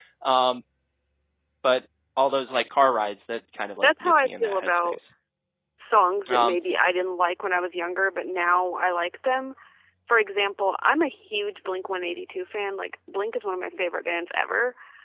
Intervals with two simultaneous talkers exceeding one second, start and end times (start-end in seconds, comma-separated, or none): 3.8-5.0